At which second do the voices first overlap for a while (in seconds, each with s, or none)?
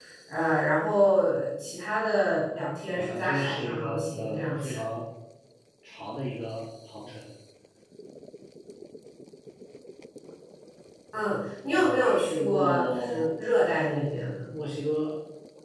2.9 s